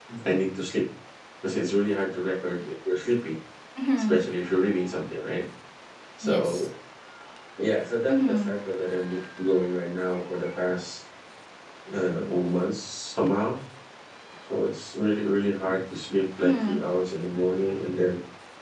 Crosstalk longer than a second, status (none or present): none